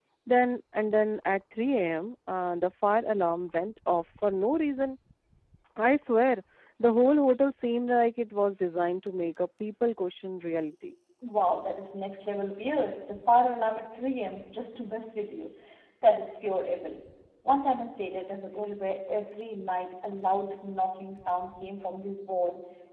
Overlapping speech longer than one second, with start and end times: none

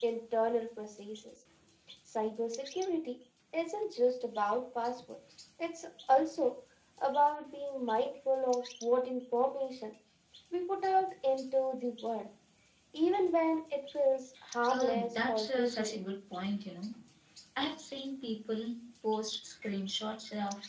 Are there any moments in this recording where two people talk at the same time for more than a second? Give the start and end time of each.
14.7-15.9

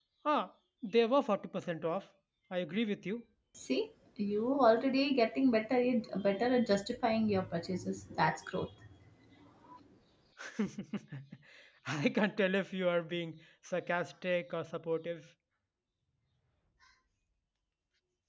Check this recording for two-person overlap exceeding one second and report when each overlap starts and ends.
none

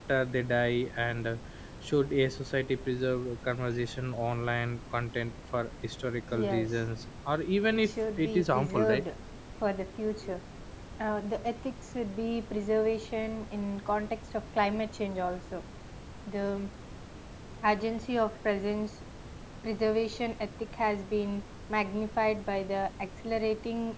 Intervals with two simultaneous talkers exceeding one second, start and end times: 7.7-9.0

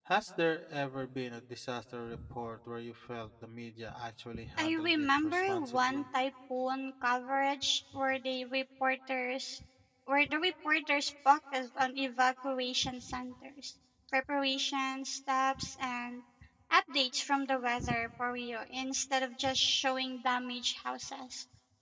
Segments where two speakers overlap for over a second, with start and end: 4.6-6.1

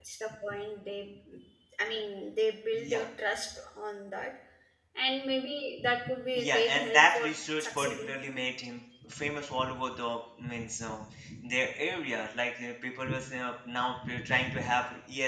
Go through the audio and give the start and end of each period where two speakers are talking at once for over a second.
6.4-8.1

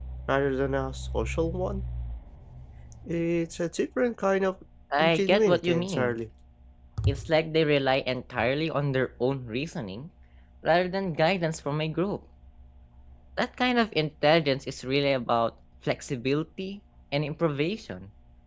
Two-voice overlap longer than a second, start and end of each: 5.0-6.2

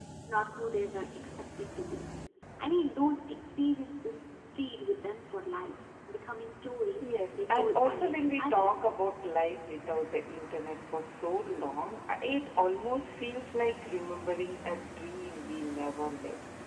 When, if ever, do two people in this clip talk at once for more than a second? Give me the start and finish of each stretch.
7.0-8.8

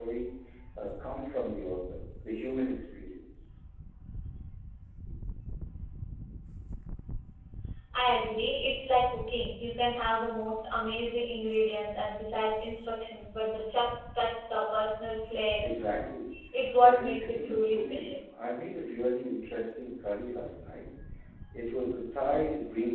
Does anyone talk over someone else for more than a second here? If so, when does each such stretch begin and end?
16.8-18.1

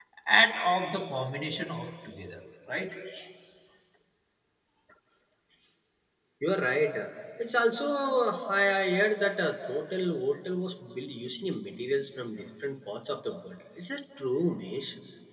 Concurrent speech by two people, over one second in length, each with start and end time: none

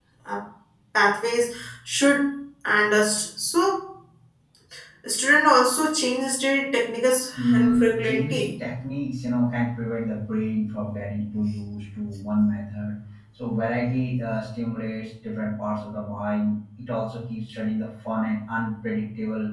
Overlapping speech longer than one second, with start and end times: 7.3-8.6

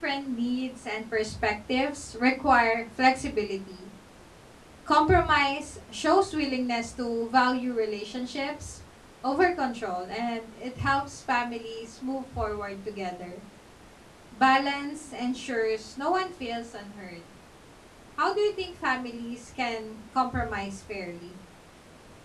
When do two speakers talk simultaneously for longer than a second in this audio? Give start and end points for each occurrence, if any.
none

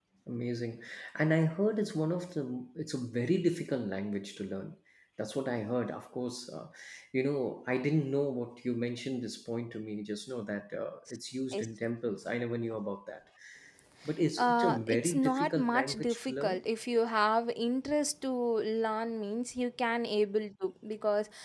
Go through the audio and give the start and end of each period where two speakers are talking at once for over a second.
14.4-16.6

